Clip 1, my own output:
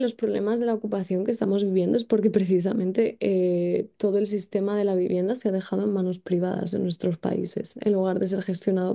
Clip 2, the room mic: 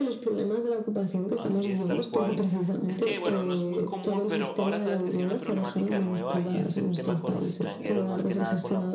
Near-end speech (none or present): present